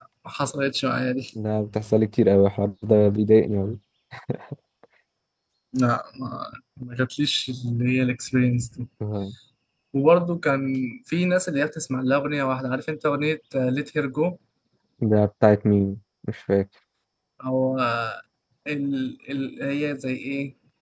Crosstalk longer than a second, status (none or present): none